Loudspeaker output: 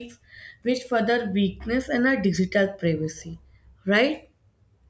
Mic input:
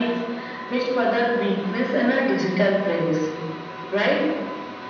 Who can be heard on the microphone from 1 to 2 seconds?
echo only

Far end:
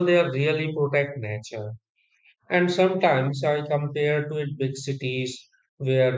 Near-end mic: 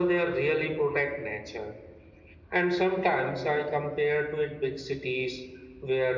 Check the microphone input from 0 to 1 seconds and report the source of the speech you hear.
echo only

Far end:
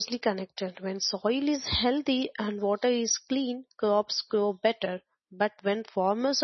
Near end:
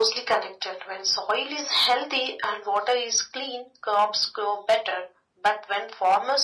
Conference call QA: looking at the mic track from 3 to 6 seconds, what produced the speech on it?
echo only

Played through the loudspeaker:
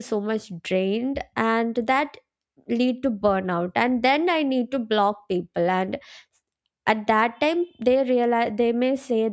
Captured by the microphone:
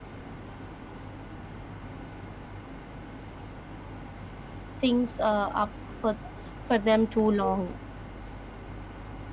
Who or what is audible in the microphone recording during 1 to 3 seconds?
neither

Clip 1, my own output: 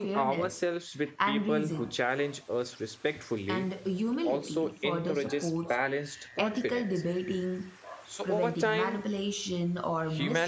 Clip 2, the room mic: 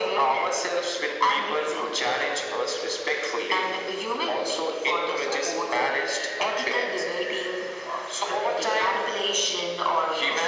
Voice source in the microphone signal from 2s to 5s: echo only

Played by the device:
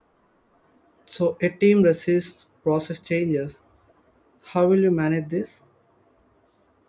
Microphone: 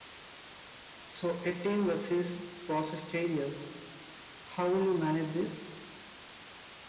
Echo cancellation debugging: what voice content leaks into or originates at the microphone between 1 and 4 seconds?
echo only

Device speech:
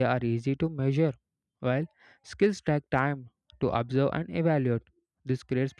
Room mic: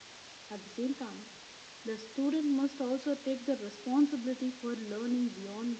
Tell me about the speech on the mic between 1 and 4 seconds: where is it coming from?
user only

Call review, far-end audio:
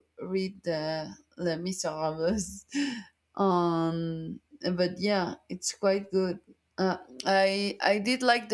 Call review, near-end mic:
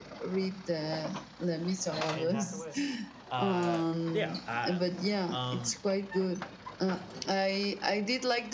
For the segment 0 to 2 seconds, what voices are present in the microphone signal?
echo only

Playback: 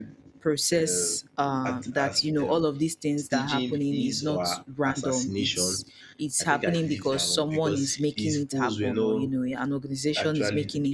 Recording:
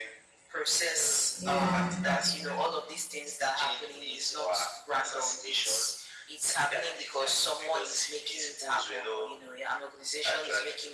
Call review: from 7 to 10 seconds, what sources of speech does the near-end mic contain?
echo only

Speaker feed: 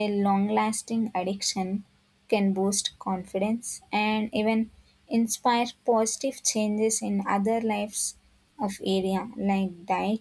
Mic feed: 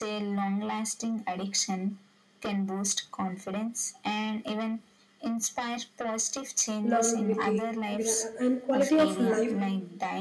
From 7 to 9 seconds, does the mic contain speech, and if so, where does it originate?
both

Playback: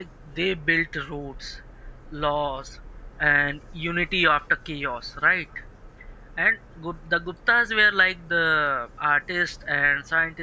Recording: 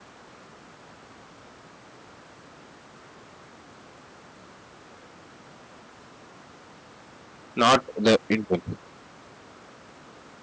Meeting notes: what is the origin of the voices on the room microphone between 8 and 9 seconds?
user only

